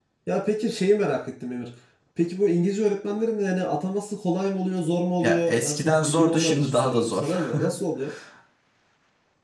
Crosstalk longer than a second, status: present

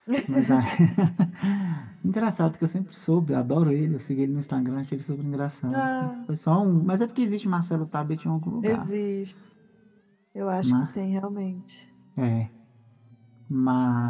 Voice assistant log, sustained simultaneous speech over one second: none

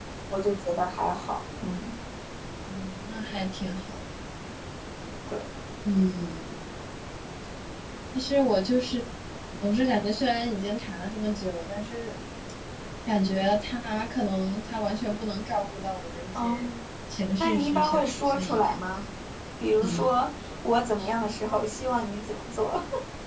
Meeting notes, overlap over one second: present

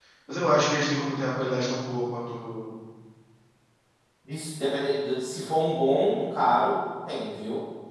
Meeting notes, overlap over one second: none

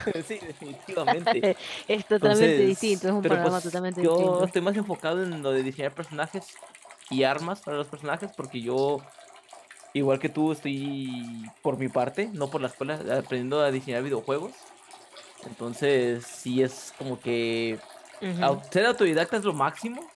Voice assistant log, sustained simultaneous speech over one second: present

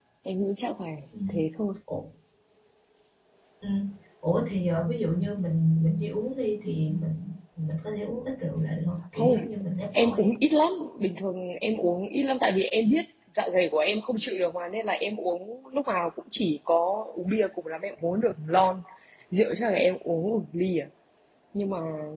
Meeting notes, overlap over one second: none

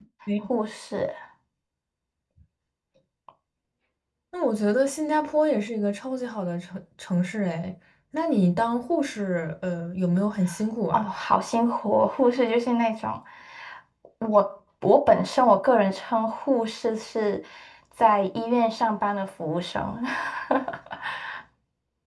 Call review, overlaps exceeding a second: none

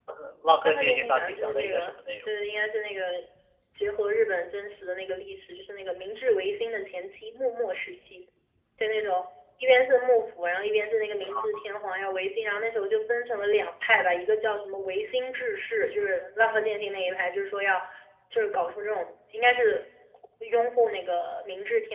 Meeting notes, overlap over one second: present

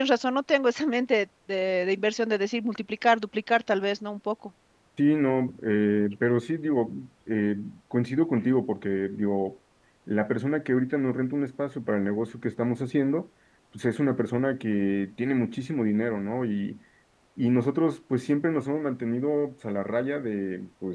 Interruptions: none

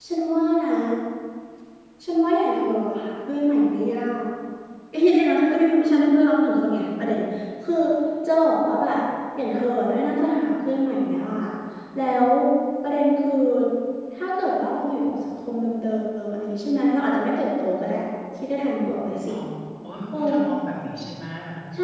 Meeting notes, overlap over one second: none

